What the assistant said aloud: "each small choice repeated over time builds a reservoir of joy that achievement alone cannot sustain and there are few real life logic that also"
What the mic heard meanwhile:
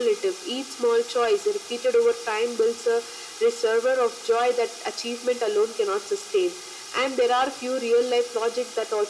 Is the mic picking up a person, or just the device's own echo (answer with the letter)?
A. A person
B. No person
B